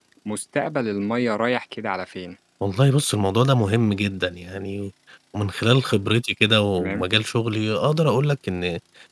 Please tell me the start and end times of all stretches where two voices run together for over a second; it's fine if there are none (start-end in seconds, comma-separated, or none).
none